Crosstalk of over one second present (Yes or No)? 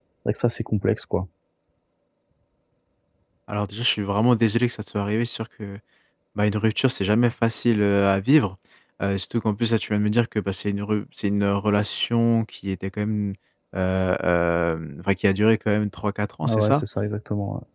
No